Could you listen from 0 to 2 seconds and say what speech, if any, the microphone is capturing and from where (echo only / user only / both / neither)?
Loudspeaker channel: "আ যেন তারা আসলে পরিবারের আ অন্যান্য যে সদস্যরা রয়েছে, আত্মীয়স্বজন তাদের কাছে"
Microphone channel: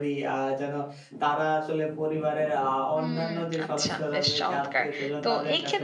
echo only